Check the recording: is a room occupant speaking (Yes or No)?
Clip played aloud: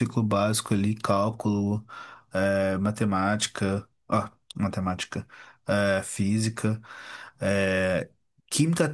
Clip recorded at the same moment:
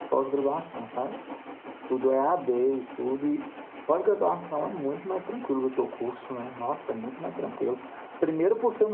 Yes